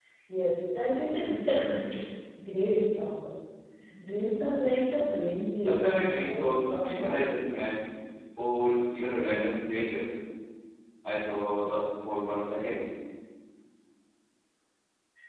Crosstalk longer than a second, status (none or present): present